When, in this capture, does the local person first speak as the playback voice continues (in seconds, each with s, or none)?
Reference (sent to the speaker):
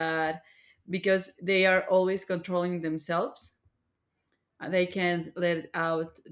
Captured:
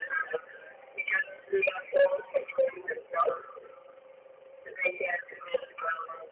none